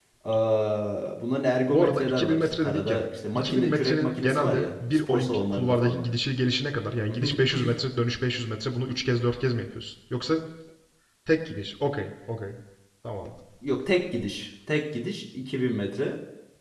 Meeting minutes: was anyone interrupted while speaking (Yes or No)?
Yes